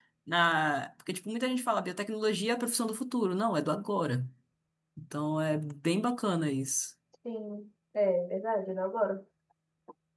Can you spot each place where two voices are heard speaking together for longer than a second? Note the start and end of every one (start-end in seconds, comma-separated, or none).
none